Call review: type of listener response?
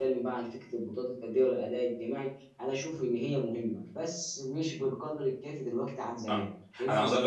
taking over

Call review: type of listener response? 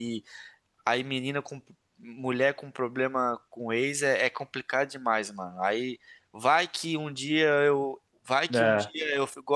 listening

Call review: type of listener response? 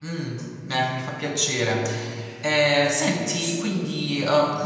listening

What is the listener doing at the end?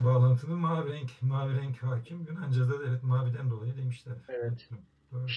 taking over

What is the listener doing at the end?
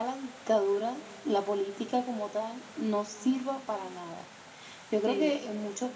listening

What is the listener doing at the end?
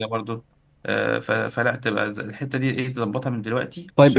taking over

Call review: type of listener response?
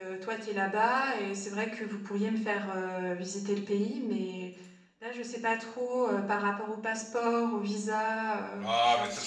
taking over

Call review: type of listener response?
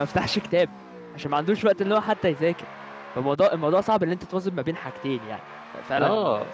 taking over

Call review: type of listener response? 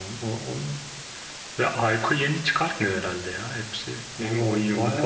taking over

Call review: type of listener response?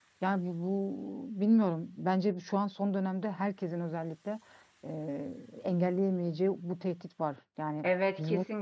taking over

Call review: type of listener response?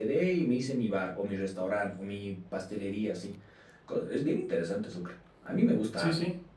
taking over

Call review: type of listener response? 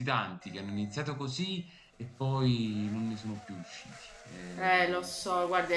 taking over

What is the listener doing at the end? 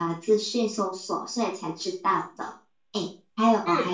listening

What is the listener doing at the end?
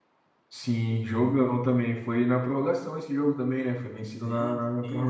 taking over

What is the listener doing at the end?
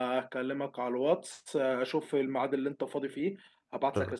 listening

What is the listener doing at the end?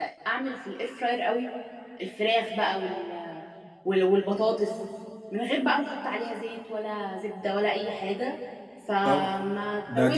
taking over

